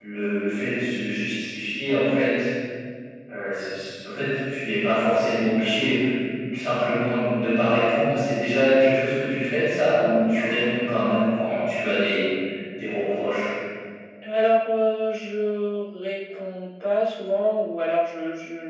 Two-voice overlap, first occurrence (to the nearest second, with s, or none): none